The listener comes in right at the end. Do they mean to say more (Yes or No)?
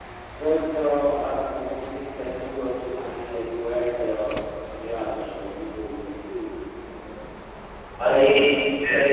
Yes